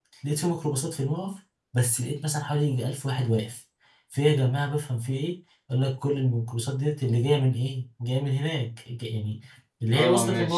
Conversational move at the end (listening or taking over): listening